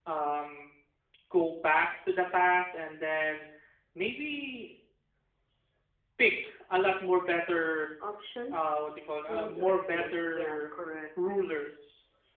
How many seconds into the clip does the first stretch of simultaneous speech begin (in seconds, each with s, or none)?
9.3 s